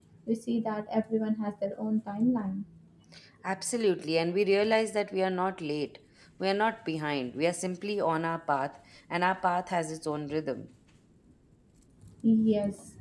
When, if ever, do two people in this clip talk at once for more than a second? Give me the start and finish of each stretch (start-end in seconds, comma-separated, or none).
none